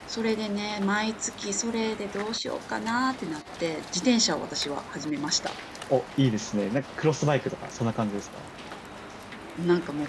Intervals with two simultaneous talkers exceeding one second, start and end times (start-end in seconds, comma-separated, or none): none